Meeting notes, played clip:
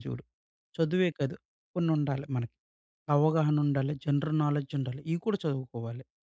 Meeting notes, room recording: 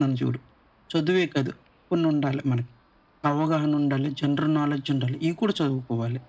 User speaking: No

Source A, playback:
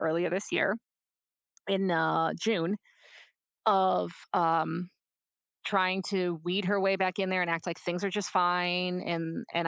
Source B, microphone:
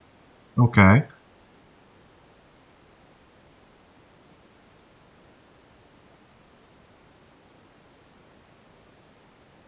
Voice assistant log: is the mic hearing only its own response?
No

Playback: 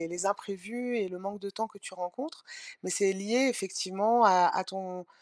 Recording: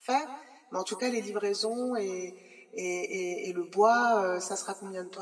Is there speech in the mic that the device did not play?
Yes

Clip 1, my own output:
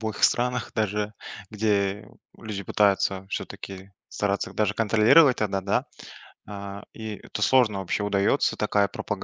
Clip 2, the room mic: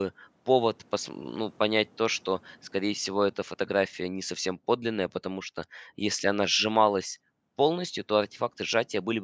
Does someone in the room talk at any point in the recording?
Yes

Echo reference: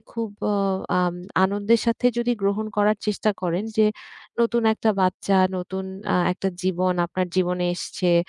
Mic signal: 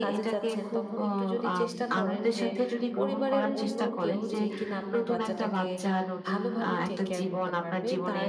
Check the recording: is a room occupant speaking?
Yes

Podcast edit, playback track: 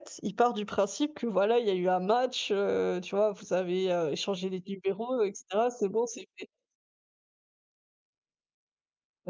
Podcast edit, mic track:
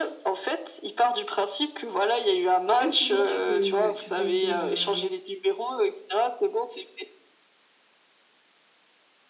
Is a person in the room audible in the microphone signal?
Yes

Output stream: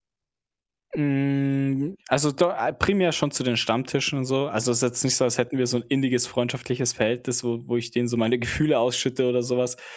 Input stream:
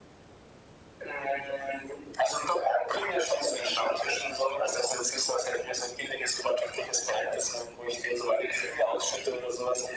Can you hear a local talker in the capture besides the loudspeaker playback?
No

